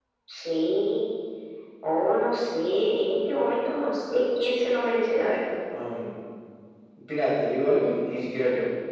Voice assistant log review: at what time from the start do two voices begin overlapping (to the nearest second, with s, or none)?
none